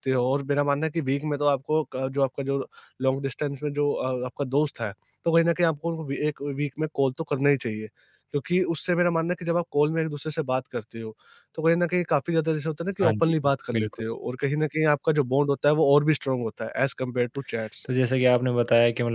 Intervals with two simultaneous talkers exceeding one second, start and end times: none

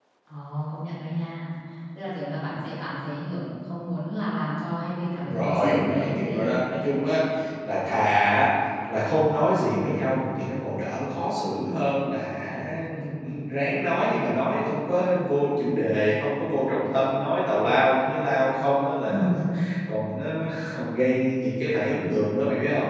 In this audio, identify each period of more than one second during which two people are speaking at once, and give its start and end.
5.2-6.5

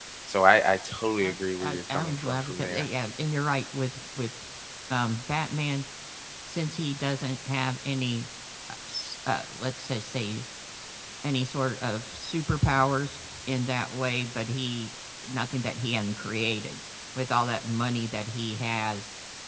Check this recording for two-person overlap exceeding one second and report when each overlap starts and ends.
1.2-2.9

